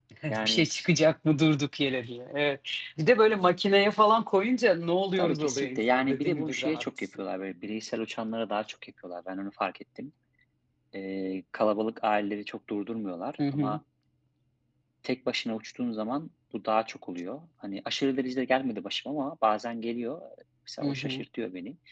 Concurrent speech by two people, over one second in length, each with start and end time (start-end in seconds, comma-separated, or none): 5.2-7.2